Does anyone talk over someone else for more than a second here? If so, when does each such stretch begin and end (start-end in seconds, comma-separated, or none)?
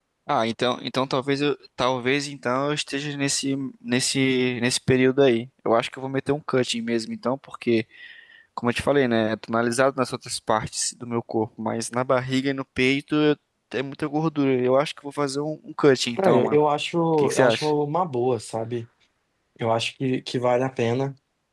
none